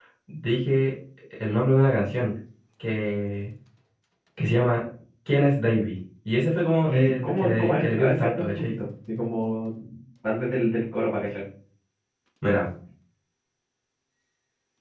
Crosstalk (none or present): present